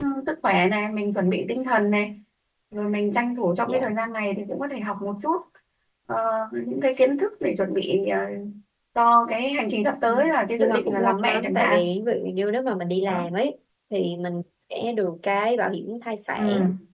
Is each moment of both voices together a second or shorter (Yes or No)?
No